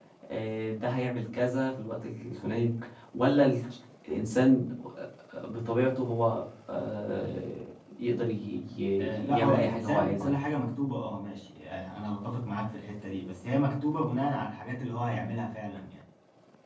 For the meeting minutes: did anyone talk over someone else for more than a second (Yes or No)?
Yes